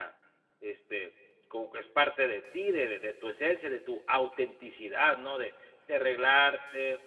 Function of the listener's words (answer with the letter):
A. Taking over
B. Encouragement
B